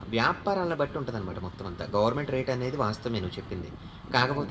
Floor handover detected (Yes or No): No